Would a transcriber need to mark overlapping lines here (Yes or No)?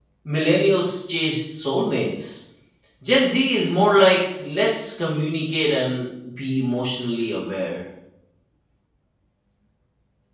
No